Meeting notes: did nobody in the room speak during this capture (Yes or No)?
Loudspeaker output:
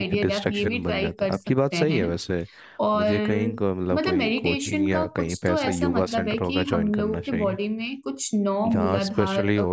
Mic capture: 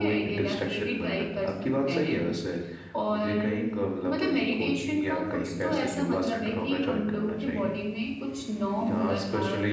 Yes